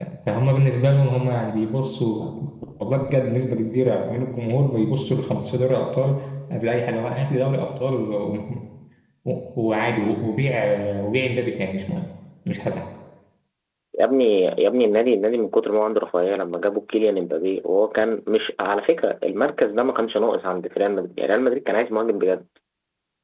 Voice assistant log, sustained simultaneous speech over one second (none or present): none